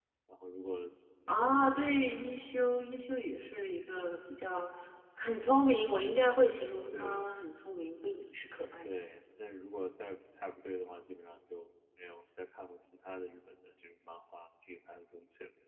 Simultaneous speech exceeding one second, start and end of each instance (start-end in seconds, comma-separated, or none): none